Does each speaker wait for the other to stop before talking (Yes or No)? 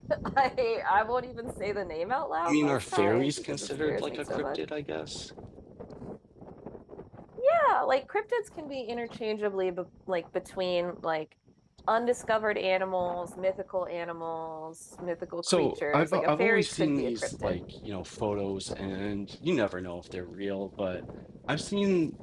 No